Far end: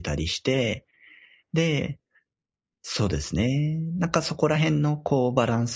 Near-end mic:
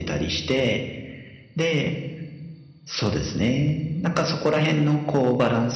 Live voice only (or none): none